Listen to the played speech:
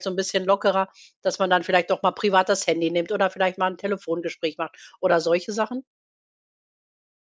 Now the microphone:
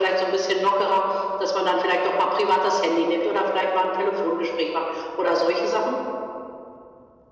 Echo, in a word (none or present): present